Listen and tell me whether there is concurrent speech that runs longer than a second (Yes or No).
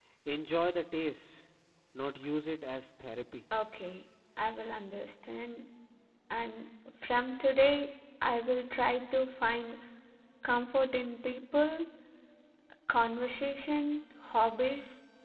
No